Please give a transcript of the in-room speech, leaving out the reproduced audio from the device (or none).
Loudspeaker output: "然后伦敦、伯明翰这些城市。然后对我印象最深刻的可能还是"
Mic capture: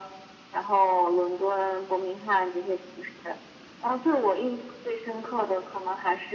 none